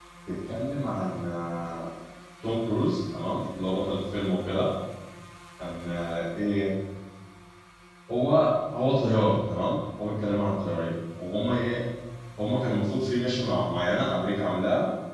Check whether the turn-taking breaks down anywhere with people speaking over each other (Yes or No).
No